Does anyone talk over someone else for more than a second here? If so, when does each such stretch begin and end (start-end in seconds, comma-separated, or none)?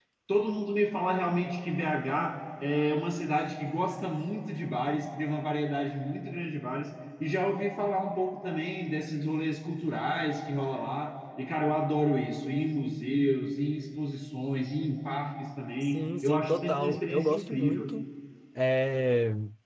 15.8-17.9